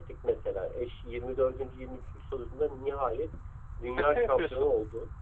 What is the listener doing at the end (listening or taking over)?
listening